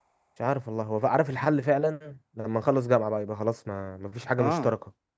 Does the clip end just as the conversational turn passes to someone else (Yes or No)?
Yes